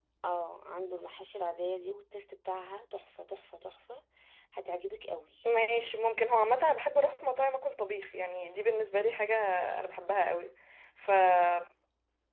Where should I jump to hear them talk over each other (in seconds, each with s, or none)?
none